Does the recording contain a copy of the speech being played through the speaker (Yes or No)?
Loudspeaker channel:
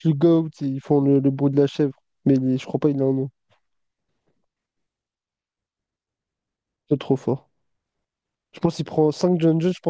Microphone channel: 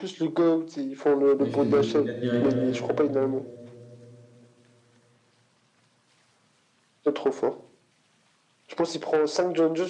Yes